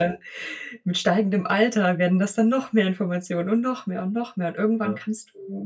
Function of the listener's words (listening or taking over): listening